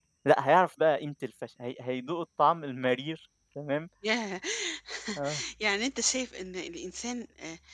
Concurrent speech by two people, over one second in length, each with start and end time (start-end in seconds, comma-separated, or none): none